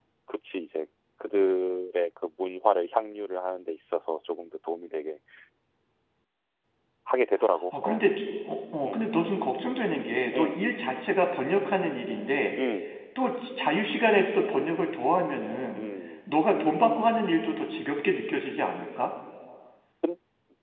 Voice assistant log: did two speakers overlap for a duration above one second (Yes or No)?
No